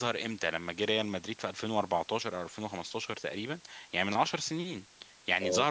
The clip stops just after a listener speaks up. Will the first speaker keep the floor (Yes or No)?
Yes